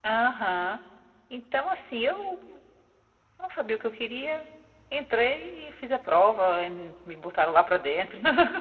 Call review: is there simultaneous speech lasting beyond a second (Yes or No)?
No